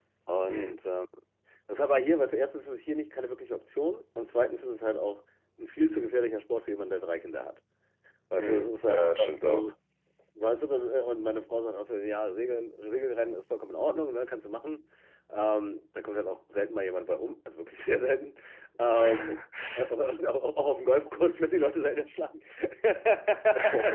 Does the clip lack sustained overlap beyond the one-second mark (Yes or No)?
No